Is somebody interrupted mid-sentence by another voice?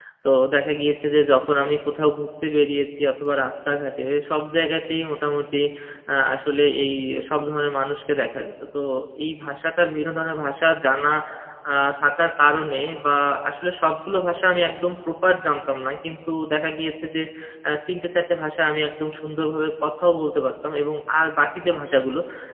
No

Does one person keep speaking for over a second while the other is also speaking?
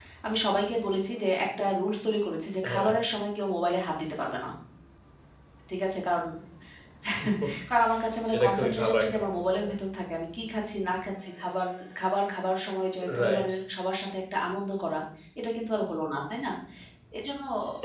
Yes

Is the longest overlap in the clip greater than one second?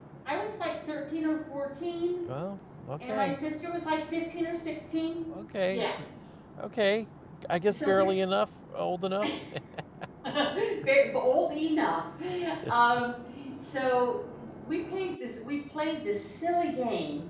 No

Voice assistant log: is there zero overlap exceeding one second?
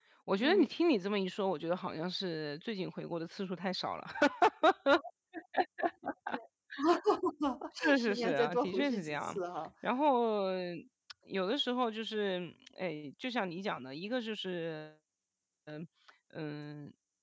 No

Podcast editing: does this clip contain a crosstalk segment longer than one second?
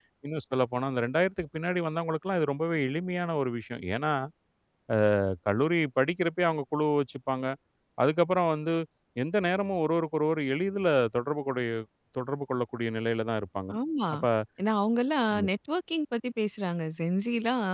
No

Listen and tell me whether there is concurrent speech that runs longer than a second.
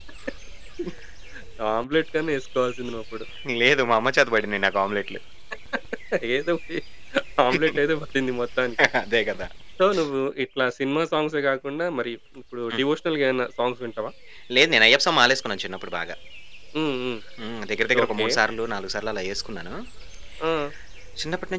No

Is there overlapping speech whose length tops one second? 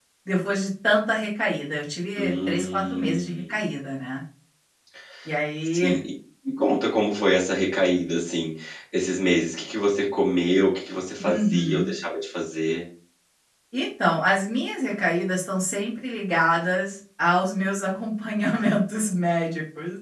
Yes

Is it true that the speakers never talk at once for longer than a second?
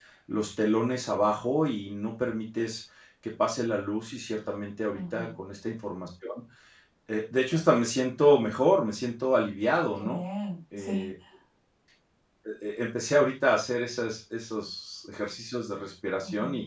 Yes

